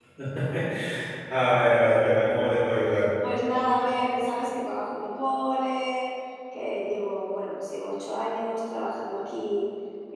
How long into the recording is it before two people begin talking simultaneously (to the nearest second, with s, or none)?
none